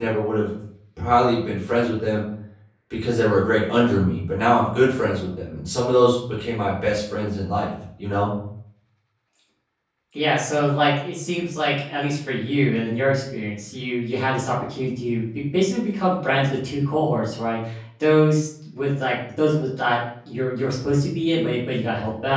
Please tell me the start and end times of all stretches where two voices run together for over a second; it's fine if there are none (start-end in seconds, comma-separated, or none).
none